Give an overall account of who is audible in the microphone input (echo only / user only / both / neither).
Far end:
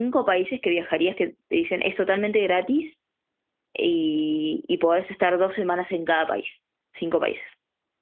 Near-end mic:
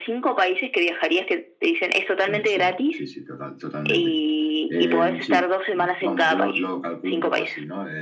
both